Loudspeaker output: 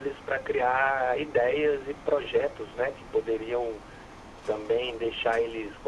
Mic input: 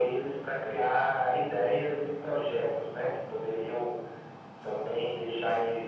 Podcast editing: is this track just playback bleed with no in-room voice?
Yes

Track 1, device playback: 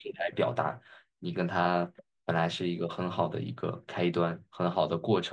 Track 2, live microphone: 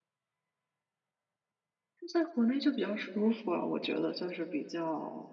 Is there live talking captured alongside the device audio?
Yes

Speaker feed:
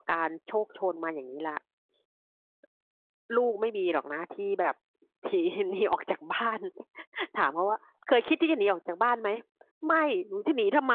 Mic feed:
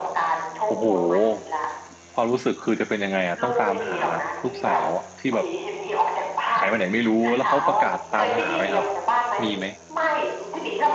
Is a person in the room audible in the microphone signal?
Yes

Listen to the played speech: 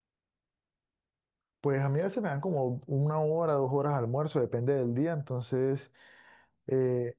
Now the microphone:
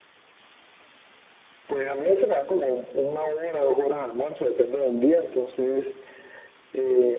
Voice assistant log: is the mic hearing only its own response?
Yes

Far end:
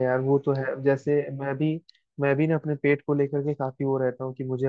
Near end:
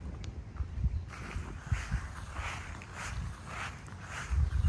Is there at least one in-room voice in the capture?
No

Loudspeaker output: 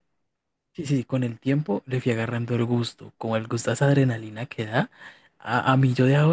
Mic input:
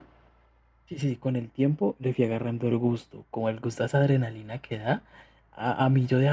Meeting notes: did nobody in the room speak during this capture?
Yes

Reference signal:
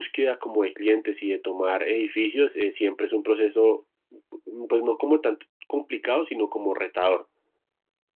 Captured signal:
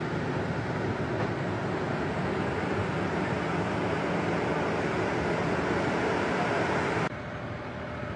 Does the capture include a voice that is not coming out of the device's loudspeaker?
No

